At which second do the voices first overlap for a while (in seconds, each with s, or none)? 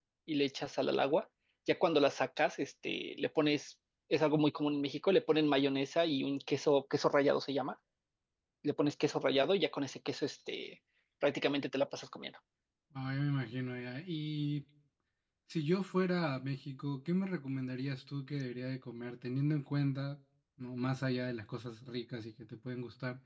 none